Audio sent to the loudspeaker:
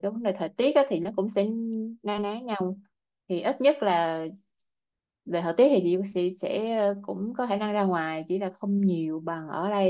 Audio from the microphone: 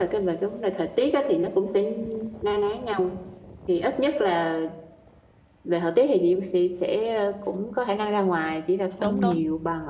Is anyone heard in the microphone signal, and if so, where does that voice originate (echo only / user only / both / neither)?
both